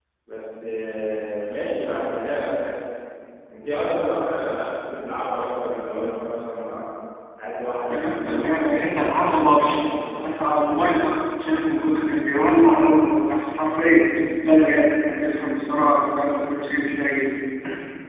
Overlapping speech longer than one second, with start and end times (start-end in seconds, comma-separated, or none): 7.9-9.8